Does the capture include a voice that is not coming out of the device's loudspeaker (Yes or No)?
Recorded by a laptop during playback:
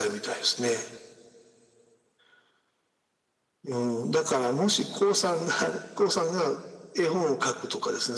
No